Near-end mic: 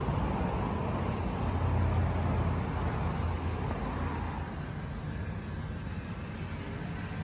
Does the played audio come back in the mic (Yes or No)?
No